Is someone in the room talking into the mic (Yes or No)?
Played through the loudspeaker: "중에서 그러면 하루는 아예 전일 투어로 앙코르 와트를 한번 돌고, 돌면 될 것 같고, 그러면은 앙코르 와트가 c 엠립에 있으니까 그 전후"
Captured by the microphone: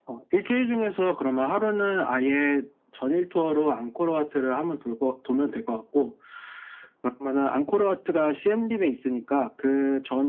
No